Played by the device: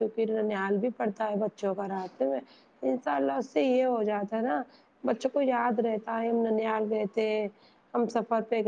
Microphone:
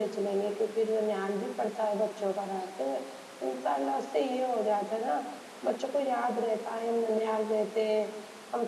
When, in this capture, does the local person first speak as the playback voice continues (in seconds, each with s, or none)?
none